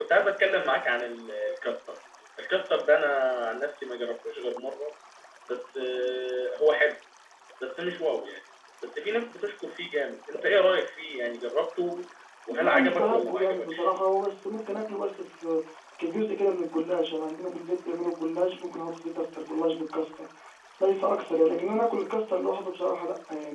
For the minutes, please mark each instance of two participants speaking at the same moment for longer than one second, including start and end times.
12.5-13.9

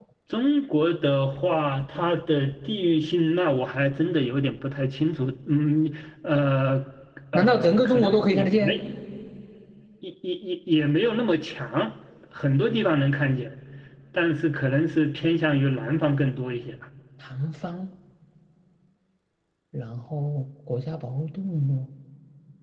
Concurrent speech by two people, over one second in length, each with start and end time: 7.3-8.7

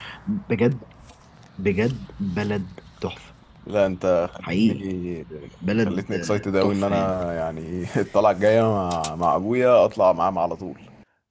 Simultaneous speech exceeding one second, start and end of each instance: 5.8-7.2

